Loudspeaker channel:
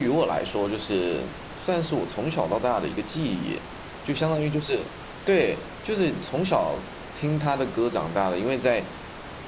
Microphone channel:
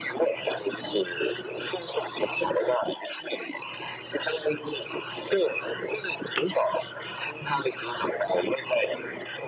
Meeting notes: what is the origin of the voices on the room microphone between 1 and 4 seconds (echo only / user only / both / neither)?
echo only